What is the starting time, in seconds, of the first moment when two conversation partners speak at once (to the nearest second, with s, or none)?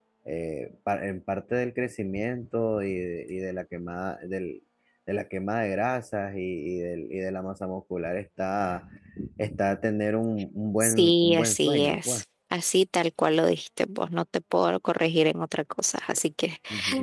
11 s